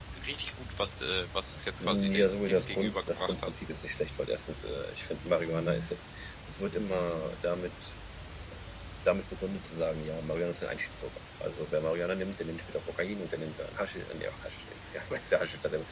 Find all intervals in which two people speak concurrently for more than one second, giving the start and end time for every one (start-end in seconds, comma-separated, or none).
1.8-3.5